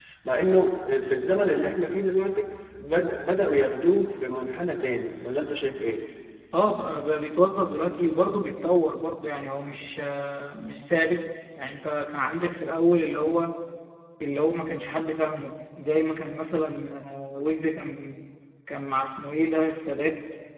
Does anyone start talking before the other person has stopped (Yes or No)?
No